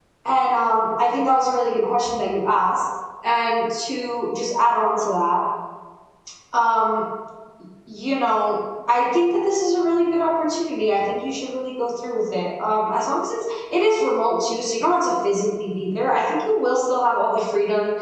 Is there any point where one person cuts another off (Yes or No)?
No